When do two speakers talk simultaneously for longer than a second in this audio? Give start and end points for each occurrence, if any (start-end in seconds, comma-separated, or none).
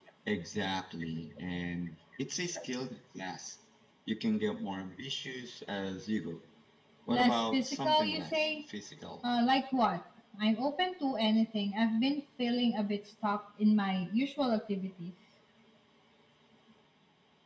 7.1-8.5